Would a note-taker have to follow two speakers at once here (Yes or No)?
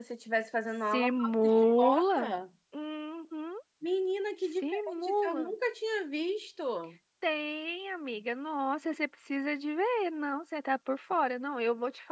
Yes